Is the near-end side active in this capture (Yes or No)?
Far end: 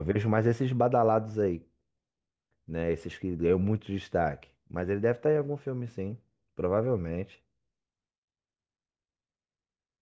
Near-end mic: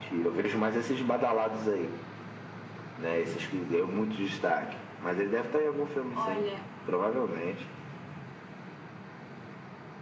Yes